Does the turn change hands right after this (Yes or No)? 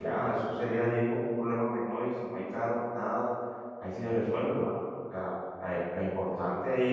No